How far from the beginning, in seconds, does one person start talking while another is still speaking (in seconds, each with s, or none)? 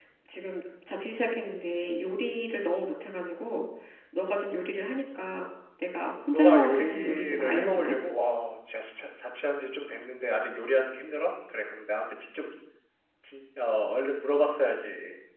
6.3 s